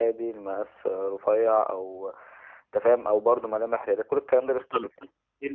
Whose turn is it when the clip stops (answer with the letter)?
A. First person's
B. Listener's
B